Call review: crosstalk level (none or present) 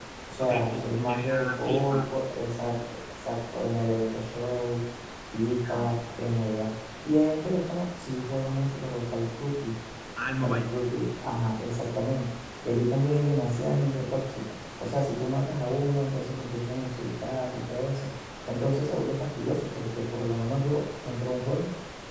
present